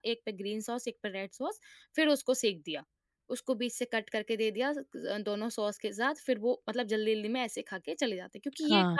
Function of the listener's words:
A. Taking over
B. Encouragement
A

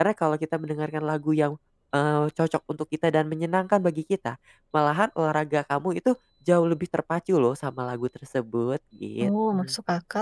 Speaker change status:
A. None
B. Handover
B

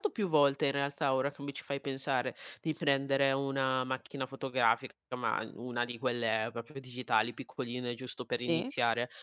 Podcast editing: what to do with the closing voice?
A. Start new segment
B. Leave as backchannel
B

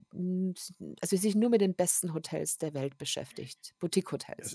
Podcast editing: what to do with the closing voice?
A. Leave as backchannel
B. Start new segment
B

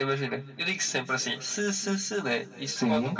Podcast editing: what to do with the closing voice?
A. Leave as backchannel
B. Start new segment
A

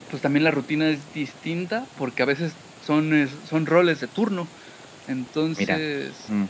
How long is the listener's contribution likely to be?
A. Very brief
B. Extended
A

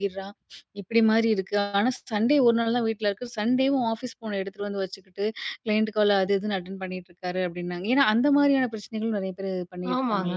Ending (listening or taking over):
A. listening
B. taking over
B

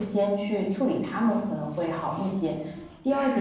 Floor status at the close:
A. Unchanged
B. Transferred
A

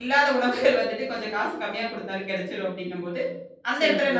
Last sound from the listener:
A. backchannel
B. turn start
A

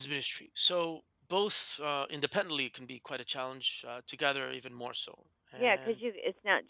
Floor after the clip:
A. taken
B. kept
A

